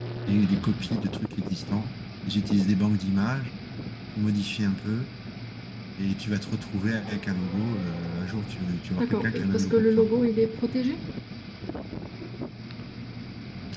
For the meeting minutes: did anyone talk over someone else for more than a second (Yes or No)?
Yes